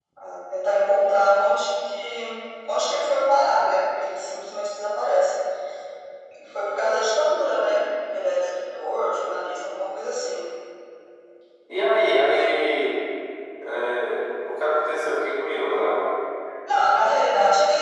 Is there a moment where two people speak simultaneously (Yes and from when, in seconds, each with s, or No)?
No